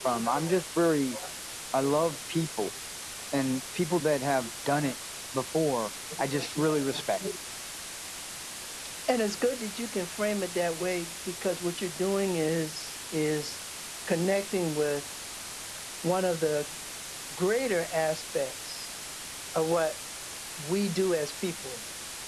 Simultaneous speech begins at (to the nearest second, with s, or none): none